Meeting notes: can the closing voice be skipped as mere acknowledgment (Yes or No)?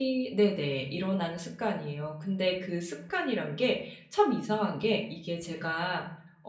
Yes